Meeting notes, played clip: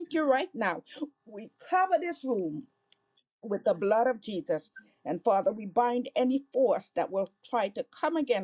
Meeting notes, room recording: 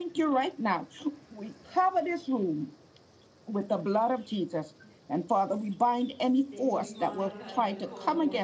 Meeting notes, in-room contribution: present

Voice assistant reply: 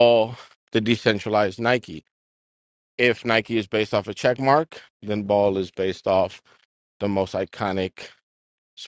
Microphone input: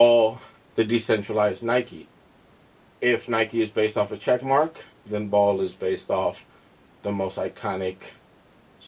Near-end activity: none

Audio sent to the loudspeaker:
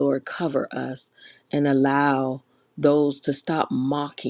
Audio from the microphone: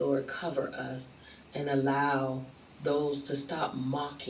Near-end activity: none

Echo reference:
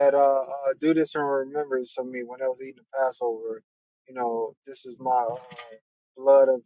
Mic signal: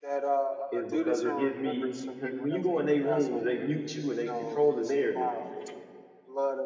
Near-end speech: present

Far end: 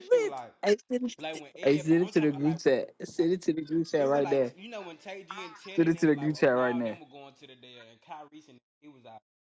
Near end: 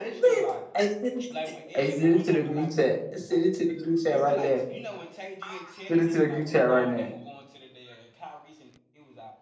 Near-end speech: none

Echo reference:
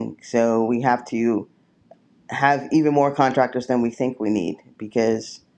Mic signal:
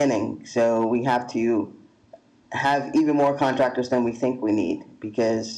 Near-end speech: none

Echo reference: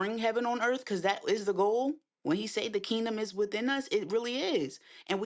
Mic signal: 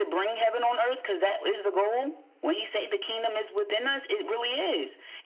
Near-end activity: none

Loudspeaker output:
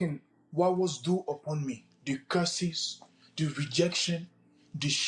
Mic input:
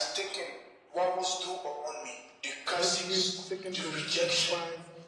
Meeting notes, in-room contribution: present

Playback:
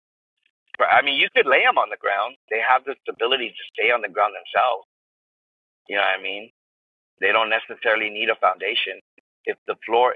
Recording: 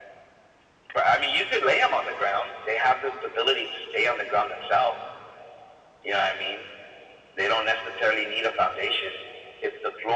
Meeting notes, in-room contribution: none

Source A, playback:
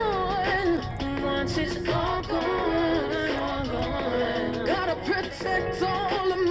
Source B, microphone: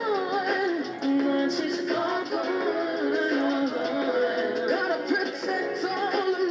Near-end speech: none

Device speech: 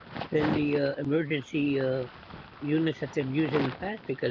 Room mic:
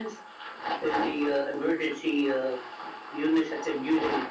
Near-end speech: none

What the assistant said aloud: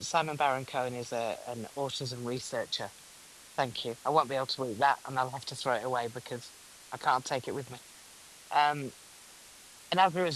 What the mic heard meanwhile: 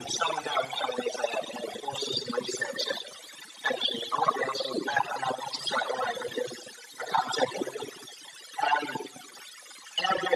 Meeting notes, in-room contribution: none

